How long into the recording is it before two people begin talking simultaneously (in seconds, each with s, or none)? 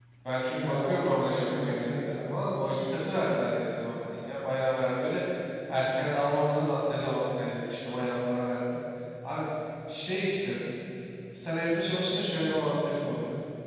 0.5 s